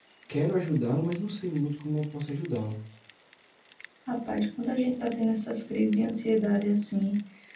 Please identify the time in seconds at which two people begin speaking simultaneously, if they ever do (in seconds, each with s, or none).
none